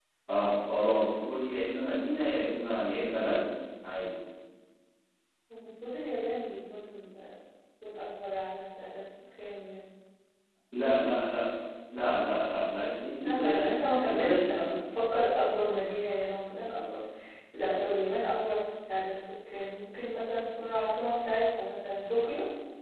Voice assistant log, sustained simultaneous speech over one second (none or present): present